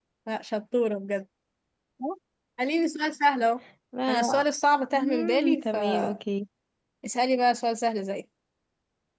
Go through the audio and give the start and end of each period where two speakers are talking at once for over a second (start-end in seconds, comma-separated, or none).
5.0-6.2